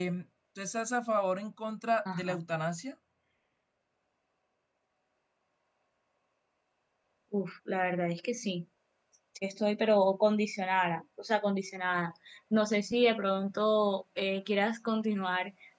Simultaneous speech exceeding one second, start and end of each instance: none

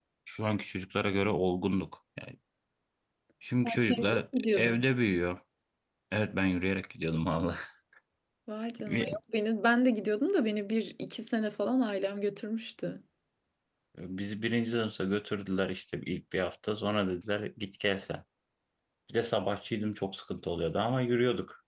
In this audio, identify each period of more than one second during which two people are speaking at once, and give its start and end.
3.5-4.8

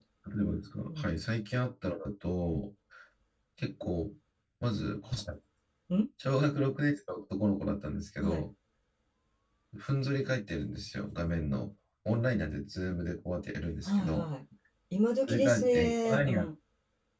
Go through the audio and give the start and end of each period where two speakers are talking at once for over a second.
15.3-16.5

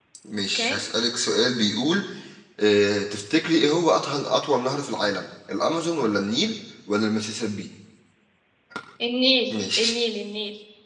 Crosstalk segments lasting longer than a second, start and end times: none

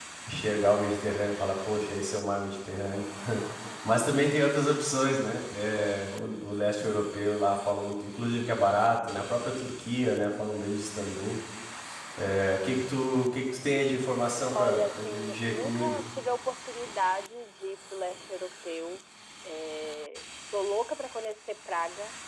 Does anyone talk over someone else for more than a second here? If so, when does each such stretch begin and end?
14.5-16.0

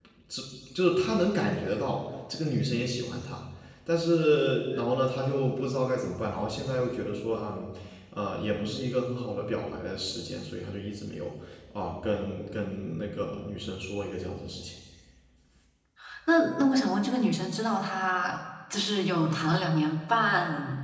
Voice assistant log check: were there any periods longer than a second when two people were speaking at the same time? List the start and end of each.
none

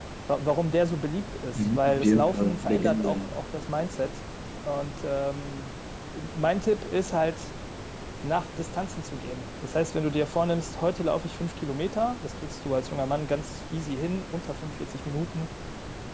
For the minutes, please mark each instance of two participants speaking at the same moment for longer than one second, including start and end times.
1.6-3.3

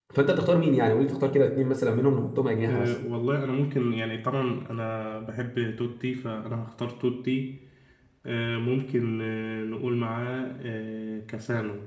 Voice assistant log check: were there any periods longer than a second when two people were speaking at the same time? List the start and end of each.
none

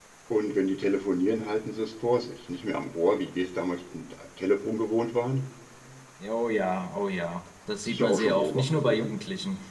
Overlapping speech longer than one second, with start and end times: 7.9-9.1

